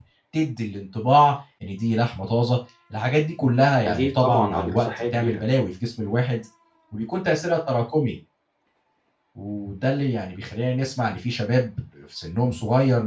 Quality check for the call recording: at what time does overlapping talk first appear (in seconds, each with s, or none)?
3.9 s